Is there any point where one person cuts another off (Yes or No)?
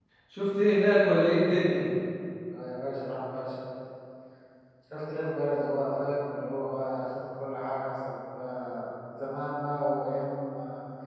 No